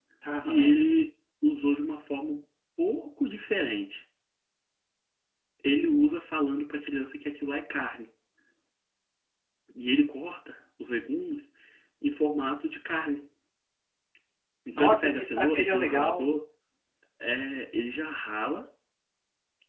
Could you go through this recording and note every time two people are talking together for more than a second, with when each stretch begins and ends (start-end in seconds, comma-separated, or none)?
14.8-16.3